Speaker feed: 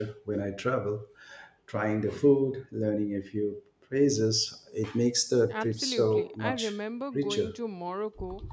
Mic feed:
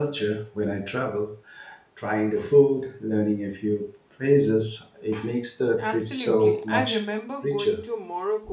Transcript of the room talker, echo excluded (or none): none